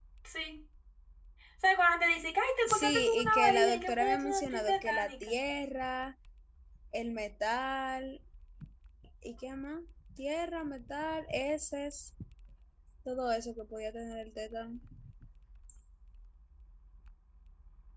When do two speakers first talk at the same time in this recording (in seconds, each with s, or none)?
2.7 s